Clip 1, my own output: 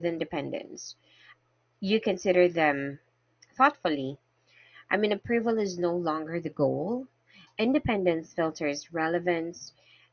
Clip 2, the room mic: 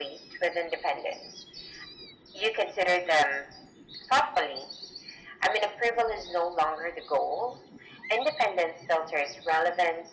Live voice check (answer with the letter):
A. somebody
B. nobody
B